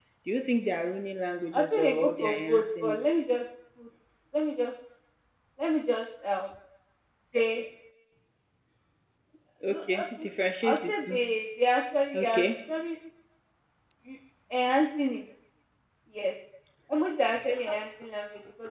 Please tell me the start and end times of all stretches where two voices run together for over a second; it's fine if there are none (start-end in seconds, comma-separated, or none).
1.5-3.0